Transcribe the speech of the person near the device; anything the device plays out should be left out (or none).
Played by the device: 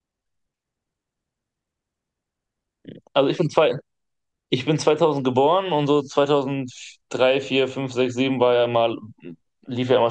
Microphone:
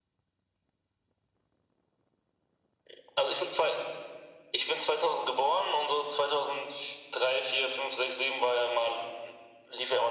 none